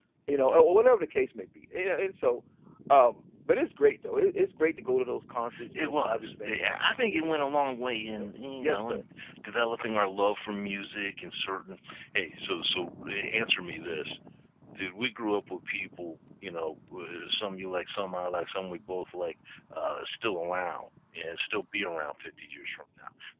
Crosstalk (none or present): present